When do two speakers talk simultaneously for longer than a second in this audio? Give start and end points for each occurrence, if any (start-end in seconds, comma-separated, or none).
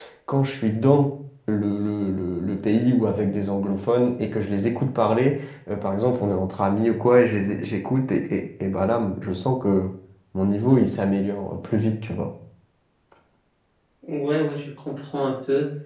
none